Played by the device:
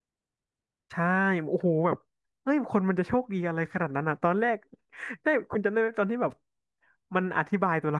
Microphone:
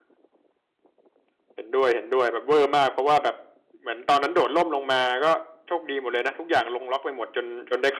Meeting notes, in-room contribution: present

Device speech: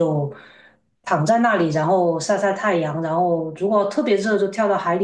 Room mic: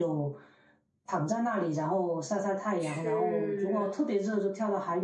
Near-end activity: present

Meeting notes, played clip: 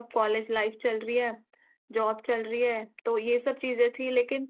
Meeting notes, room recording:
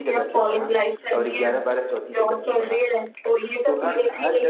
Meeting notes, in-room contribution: present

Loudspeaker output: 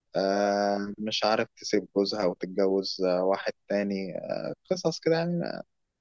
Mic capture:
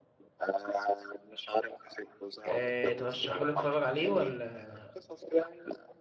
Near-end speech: present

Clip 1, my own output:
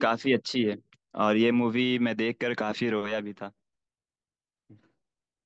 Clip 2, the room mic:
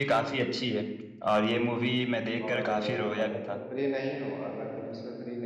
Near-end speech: present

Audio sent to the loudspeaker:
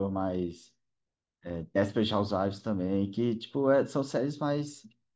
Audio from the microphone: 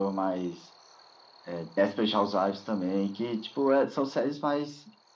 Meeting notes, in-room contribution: none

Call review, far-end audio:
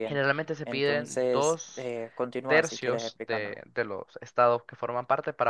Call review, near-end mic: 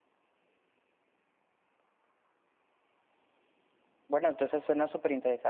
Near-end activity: present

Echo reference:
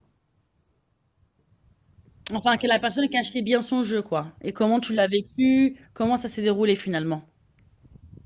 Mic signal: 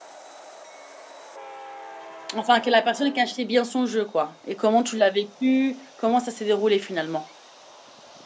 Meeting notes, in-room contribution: none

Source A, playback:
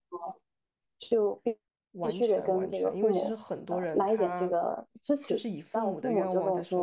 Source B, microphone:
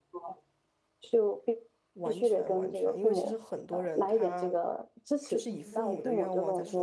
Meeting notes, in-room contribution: present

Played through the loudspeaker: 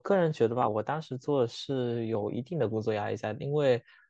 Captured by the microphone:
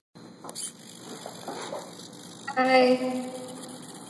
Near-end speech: present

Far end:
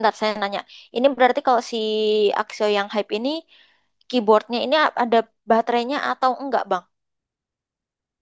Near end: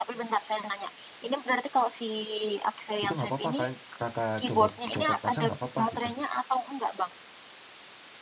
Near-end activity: present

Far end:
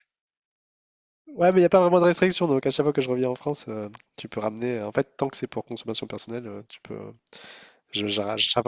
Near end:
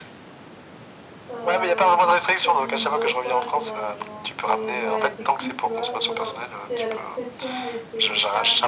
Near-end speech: present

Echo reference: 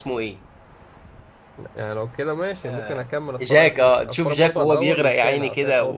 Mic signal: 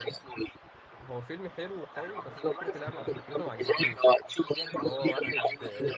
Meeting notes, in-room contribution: present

